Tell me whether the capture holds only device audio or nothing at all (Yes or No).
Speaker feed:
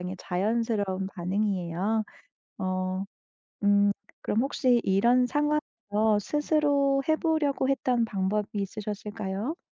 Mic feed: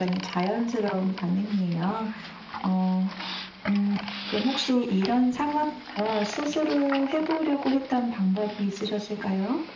Yes